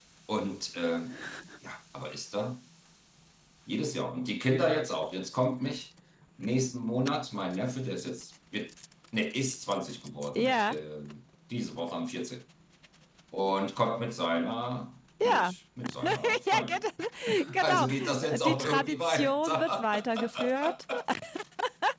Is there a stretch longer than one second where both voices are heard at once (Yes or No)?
Yes